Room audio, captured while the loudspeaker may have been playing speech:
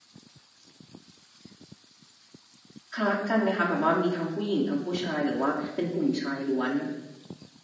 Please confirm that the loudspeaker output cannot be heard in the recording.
Yes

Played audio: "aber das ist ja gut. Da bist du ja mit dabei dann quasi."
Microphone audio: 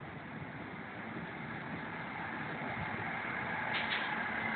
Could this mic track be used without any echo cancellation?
Yes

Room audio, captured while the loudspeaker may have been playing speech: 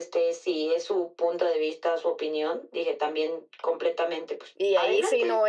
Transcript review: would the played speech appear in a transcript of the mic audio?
Yes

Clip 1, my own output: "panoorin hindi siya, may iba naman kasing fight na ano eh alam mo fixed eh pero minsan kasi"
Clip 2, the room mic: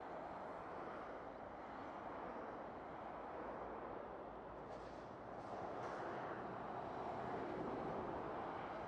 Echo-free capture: Yes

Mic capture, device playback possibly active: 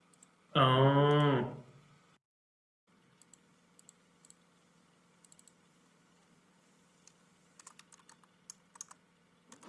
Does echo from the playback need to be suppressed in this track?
No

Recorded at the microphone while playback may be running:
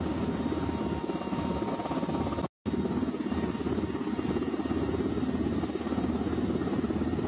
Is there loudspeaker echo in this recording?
No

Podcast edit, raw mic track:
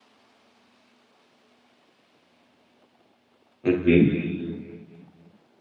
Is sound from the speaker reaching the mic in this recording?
No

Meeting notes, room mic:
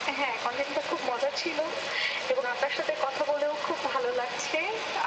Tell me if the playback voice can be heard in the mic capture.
Yes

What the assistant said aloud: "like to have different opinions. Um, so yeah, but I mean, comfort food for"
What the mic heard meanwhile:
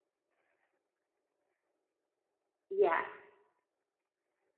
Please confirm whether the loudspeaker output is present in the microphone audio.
No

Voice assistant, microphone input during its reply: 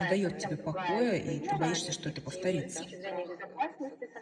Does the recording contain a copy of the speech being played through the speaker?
Yes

